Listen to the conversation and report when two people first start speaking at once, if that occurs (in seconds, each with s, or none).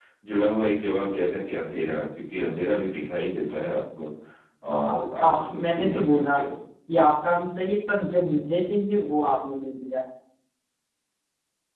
4.7 s